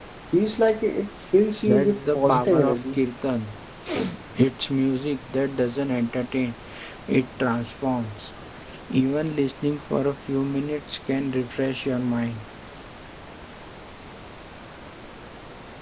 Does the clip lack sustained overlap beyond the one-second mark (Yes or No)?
No